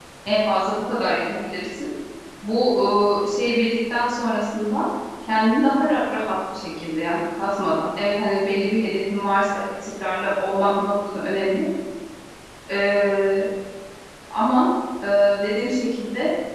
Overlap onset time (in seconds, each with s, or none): none